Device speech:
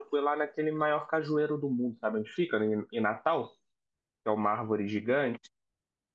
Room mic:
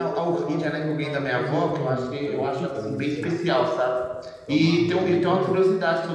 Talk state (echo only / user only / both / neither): both